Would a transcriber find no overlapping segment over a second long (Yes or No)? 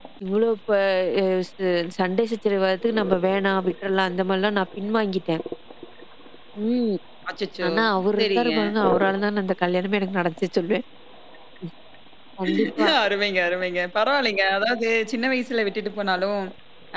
Yes